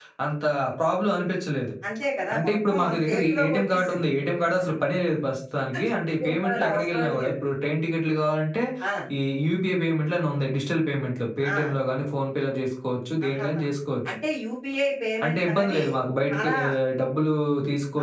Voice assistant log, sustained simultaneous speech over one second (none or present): present